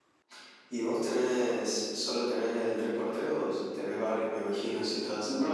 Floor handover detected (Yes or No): Yes